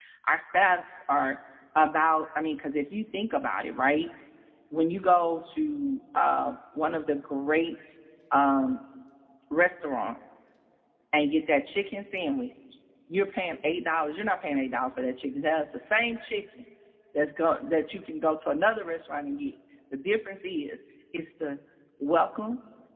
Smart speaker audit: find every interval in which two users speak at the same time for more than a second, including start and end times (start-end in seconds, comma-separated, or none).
none